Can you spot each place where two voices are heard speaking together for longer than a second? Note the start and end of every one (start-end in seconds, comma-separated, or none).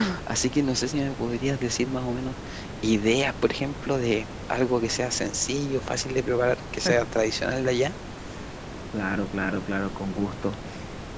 none